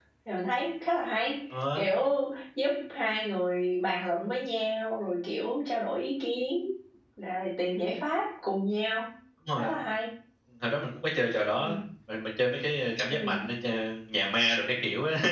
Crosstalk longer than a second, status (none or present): none